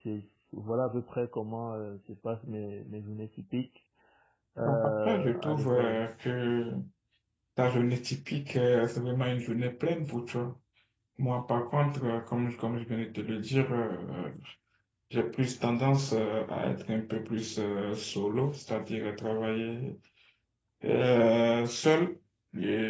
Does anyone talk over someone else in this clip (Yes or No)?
Yes